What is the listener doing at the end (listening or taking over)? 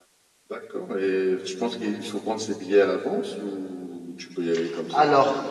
taking over